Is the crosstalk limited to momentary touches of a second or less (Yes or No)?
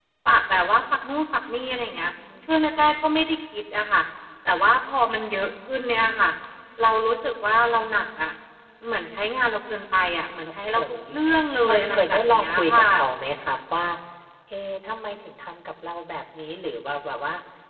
No